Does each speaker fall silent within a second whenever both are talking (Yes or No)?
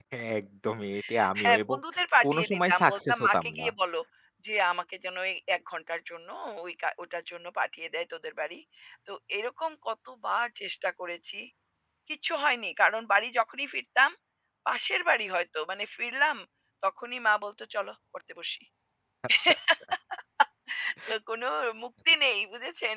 No